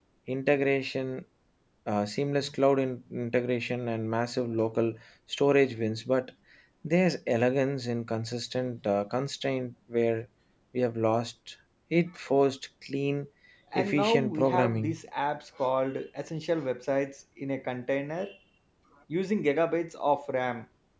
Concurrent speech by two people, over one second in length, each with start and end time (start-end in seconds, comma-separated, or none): 13.8-14.9